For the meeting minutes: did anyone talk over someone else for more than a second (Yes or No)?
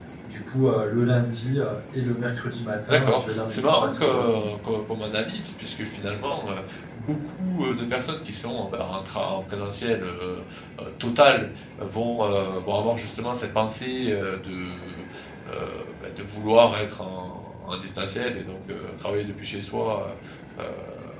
Yes